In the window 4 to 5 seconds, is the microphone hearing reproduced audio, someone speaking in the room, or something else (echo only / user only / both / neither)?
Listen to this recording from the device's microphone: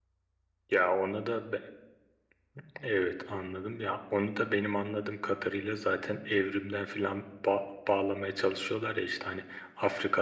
echo only